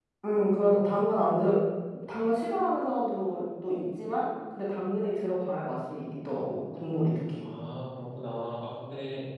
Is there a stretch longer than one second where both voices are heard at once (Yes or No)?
No